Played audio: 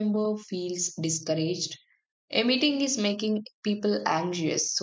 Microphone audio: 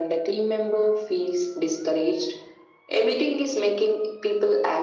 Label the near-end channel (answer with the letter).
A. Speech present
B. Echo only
B